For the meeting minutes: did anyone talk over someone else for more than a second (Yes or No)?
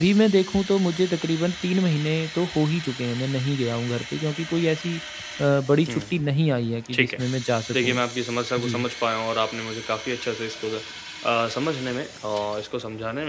No